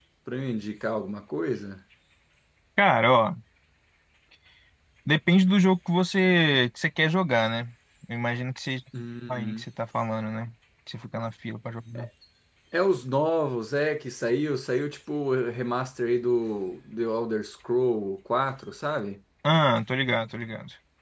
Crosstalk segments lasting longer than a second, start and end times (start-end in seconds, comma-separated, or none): none